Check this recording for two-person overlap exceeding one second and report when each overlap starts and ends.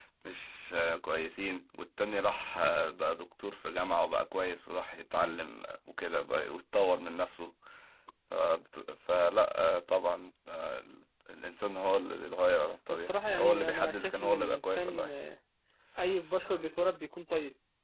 12.9-15.1

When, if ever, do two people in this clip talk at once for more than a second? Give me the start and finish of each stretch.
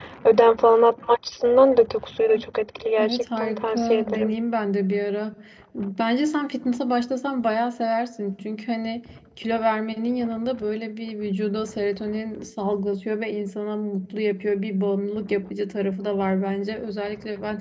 3.0-4.3

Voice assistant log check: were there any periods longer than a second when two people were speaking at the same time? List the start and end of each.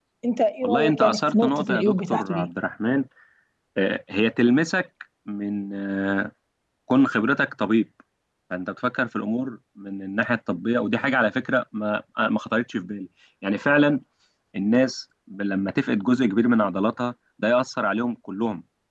0.6-2.5

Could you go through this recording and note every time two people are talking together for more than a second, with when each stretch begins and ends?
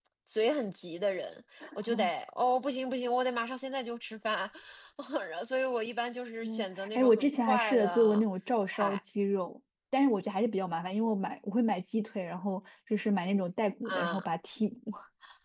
7.0-8.2

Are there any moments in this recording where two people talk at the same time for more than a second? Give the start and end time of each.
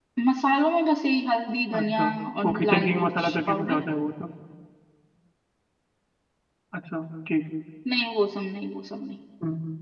2.4-3.8

